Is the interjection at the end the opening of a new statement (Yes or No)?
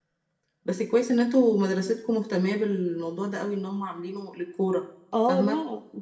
Yes